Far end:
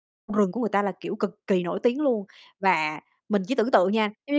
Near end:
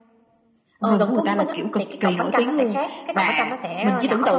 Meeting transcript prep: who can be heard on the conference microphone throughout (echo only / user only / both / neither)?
both